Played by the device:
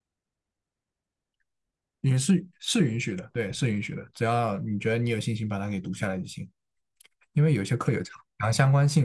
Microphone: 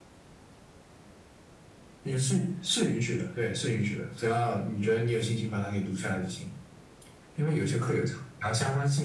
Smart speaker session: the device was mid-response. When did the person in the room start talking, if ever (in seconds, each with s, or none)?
none